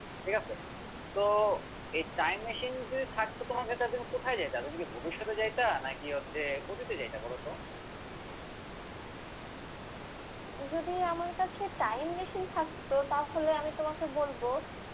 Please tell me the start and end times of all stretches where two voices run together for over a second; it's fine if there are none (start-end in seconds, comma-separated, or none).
none